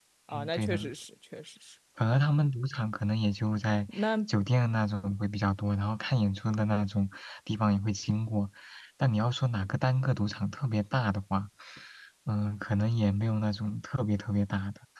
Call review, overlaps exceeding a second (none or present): none